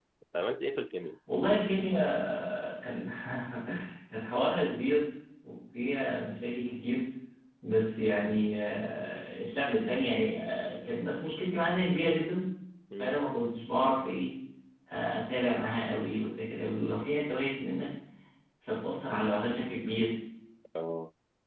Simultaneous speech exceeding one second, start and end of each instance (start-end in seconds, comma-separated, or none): none